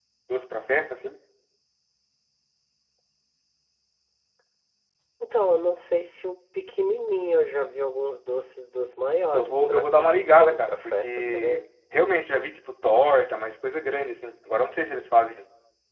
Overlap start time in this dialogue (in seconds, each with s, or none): 9.3 s